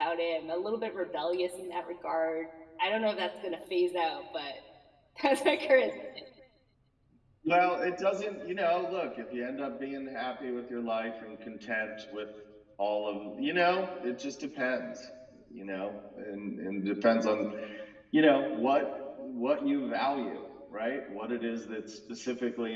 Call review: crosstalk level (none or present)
none